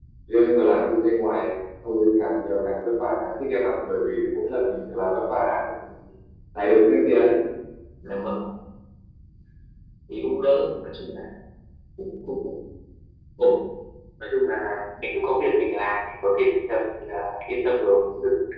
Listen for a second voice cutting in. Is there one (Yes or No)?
No